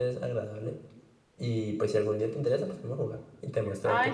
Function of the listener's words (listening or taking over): taking over